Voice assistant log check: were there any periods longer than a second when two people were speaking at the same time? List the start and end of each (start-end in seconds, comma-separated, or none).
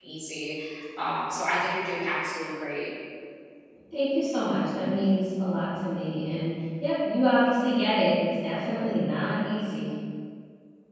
none